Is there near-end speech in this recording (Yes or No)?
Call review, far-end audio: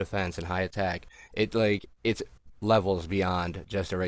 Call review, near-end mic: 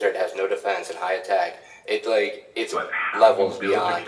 Yes